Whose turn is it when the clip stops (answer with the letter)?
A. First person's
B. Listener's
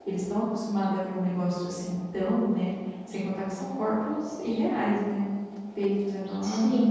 A